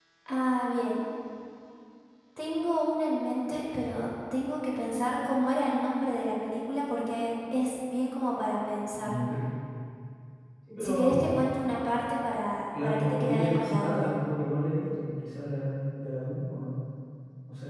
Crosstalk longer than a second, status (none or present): present